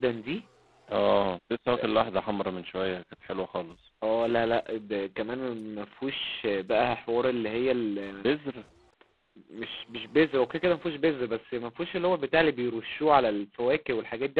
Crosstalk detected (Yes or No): No